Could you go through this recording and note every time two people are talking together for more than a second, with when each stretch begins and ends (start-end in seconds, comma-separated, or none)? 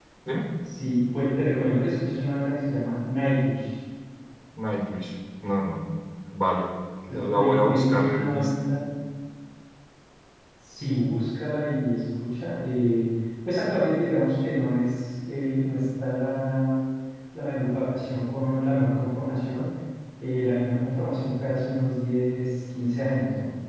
7.1-8.5